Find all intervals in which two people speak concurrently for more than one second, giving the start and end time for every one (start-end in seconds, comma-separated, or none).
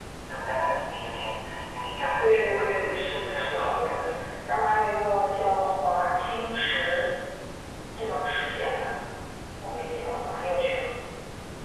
2.2-4.0